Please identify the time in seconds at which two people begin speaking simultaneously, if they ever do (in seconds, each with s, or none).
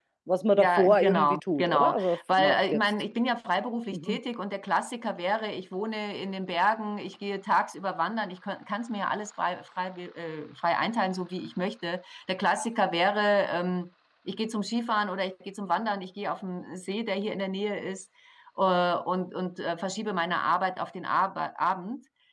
0.6 s